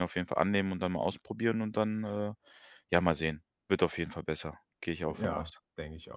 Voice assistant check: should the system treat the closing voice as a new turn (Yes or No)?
Yes